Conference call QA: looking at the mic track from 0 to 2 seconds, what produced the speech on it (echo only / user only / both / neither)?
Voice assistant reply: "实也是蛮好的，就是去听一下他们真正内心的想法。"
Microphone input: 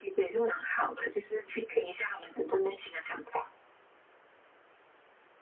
echo only